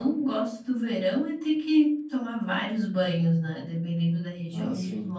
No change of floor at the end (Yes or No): Yes